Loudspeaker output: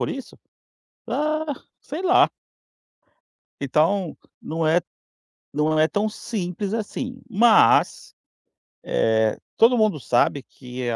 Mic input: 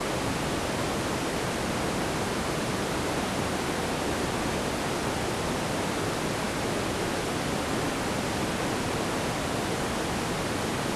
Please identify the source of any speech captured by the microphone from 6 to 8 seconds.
neither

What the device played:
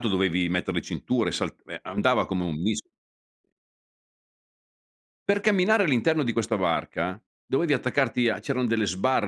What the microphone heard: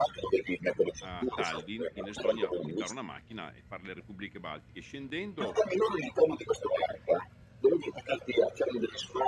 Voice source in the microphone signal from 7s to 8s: echo only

